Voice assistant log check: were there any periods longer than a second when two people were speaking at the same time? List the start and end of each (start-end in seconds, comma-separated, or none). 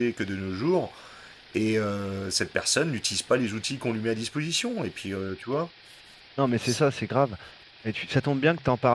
none